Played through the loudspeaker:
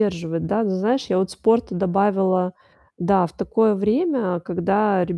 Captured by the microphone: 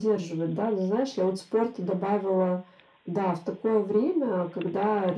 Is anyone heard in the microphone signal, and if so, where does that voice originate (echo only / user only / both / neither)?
echo only